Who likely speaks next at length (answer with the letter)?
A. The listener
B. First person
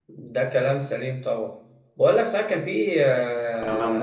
B